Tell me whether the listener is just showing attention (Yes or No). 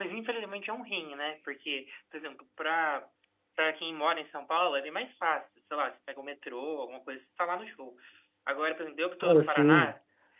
Yes